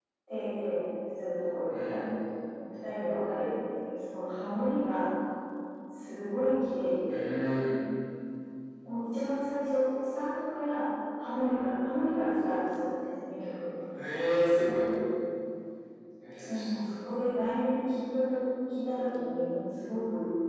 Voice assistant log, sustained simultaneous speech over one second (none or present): none